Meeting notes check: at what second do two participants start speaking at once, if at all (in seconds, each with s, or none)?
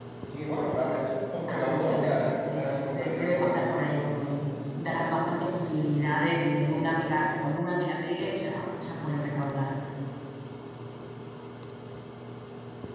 1.5 s